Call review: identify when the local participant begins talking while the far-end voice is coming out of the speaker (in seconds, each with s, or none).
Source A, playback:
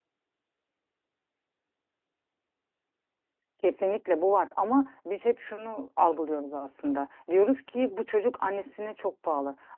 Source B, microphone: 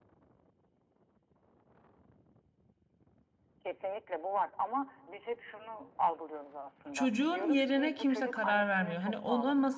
6.9 s